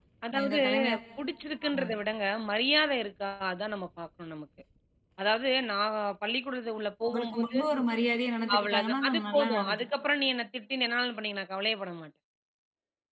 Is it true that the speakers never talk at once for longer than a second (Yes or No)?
No